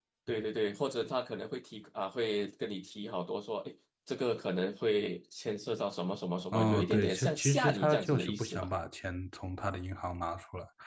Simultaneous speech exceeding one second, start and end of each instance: 6.5-8.7

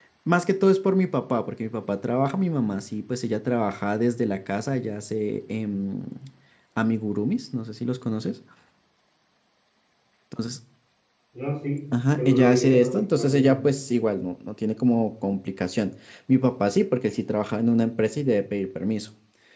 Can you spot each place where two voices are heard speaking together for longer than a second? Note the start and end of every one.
12.2-13.6

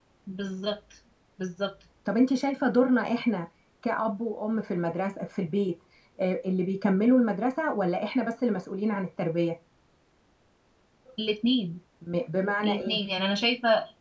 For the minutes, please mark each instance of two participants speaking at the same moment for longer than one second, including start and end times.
none

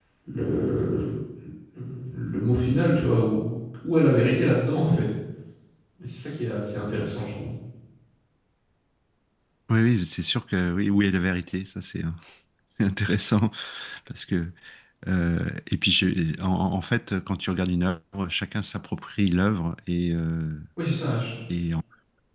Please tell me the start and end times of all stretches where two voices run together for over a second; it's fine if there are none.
none

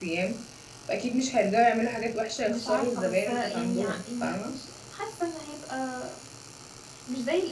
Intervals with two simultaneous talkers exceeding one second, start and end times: 2.5-4.5

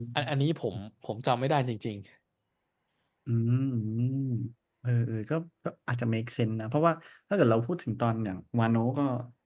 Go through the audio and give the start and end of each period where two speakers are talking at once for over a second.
none

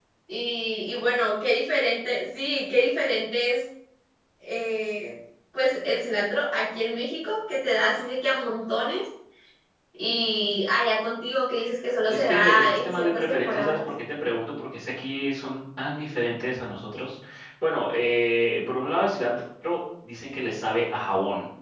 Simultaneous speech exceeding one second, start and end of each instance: 12.1-13.8

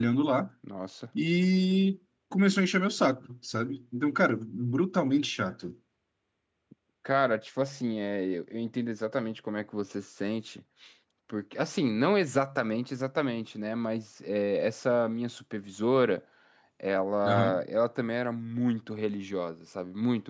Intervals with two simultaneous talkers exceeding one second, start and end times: none

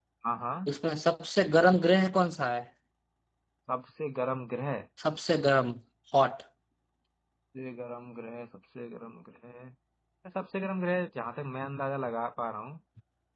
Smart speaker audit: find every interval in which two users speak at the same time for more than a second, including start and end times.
none

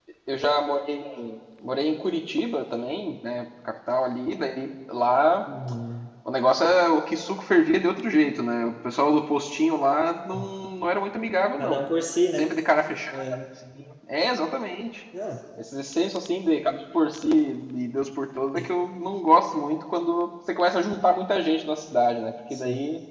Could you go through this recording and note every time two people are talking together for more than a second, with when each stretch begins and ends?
none

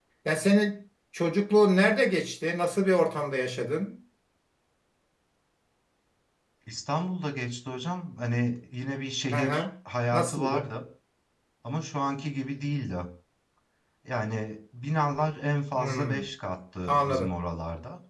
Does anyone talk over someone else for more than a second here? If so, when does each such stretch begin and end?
none

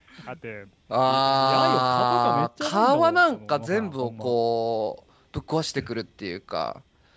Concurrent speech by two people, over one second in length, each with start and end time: 1.1-4.3

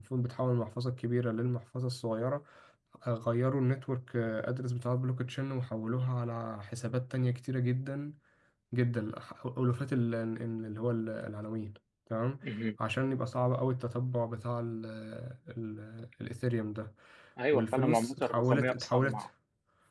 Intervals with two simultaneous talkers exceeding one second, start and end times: 17.5-19.3

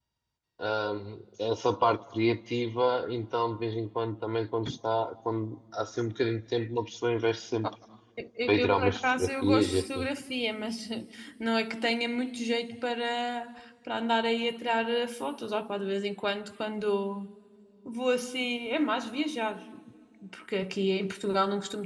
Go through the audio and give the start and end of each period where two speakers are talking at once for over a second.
8.5-10.1

